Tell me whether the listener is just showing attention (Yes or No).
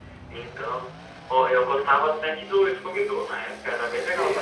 No